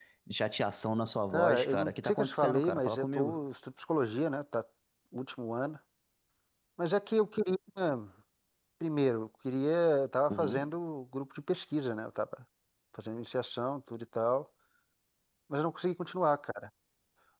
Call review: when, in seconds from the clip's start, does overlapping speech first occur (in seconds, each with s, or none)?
1.3 s